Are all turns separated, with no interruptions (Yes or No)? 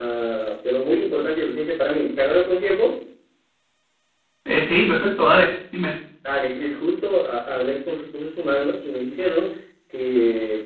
Yes